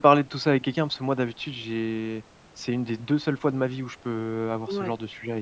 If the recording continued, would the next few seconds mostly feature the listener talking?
Yes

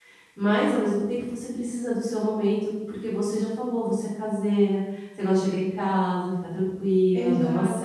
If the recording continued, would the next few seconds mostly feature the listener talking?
Yes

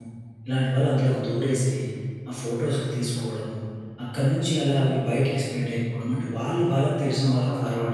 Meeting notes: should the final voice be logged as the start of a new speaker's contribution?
No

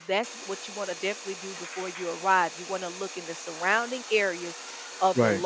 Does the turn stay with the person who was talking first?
Yes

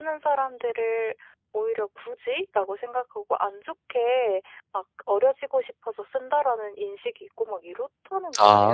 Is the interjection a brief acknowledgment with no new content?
No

